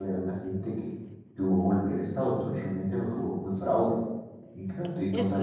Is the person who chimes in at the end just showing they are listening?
No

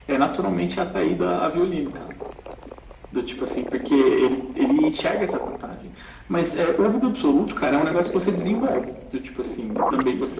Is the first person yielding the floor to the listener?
No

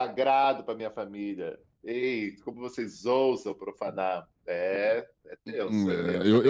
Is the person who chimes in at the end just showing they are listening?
No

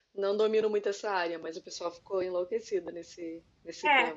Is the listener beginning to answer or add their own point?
Yes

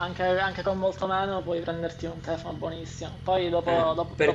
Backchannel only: Yes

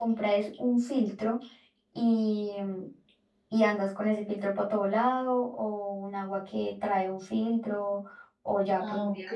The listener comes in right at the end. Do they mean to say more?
No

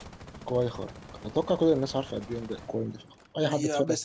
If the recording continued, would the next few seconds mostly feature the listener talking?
Yes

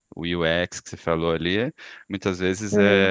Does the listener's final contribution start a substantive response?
No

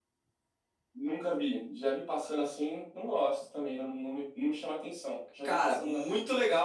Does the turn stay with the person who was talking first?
No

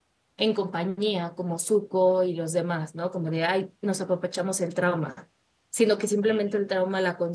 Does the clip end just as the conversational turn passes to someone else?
No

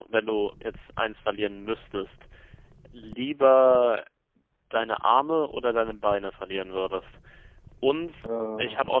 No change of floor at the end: Yes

